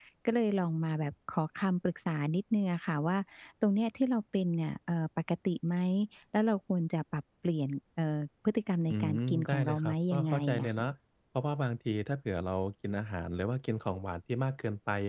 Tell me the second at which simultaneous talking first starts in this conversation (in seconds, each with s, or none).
8.9 s